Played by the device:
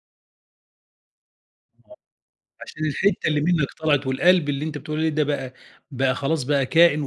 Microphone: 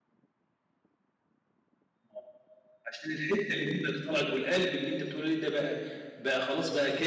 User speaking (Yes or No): No